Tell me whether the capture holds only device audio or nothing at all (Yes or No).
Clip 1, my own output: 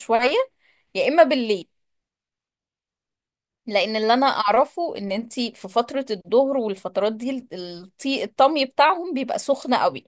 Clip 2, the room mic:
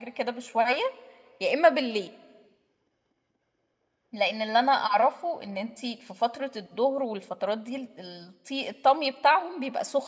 Yes